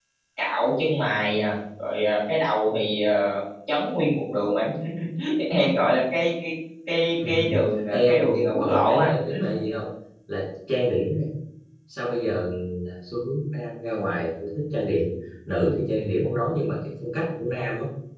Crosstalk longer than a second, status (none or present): present